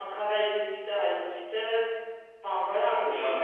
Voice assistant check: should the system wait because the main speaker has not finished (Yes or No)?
No